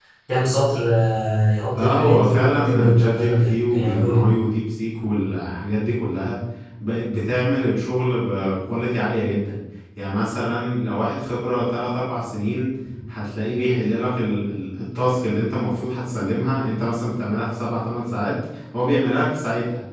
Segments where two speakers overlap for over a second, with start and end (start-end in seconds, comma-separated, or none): 1.8-4.2